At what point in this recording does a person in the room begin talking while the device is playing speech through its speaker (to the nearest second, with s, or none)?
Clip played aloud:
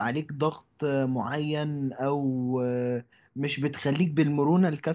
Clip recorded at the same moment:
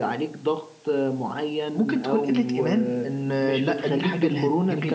2 s